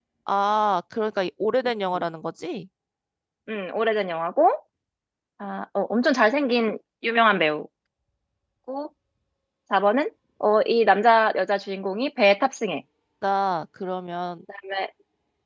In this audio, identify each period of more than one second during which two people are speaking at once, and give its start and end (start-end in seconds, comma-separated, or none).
none